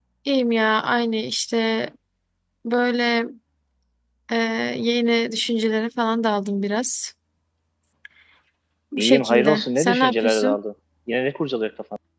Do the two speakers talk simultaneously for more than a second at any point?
Yes, from 9.0 s

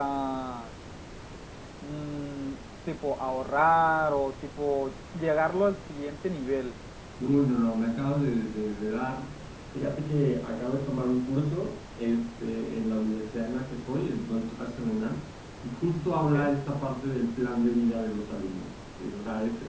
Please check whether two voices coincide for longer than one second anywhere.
No

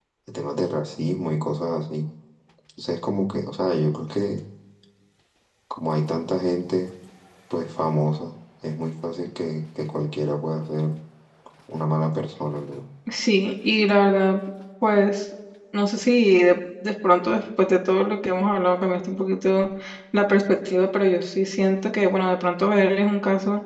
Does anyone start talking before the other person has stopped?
No

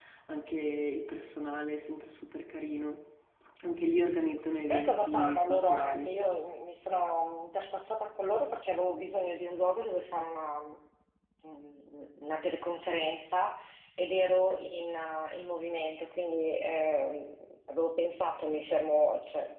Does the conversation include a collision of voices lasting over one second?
Yes, from 4.7 s

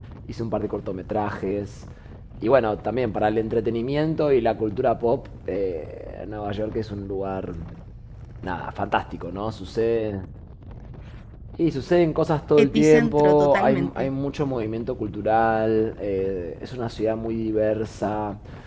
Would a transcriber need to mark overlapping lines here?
Yes, from 12.6 s

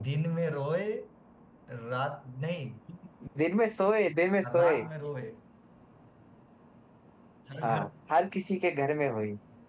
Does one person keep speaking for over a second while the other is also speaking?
No

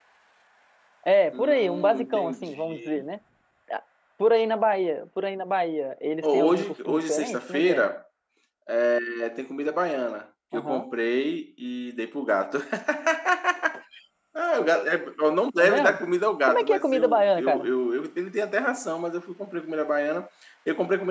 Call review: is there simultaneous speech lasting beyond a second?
Yes, from 1.3 s

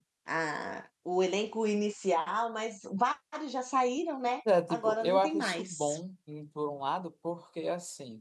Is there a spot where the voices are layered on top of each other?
Yes, from 4.5 s

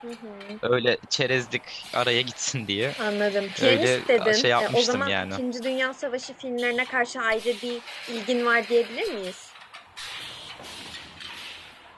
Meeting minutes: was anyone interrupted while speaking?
Yes, from 3.6 s

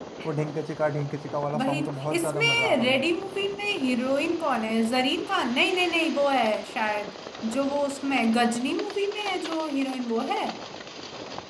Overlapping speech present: Yes, from 1.5 s

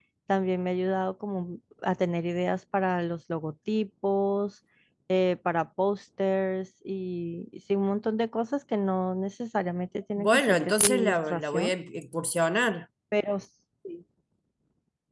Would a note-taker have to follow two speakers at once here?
Yes, from 10.2 s

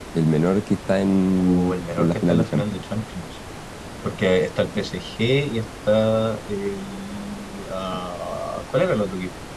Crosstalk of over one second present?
Yes, from 1.3 s

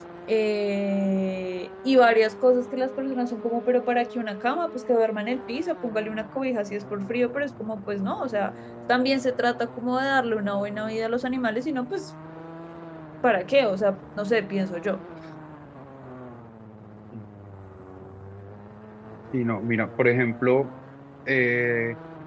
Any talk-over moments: No

